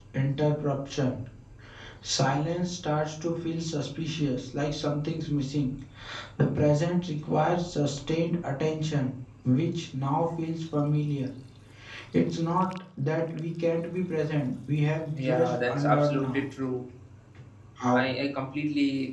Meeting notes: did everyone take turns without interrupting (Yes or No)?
No